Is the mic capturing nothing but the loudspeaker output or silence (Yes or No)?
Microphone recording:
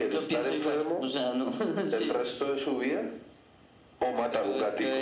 Yes